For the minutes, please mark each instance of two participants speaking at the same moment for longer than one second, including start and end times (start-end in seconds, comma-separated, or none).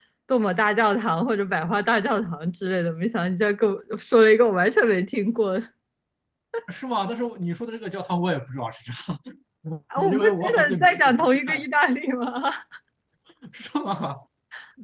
10.1-11.6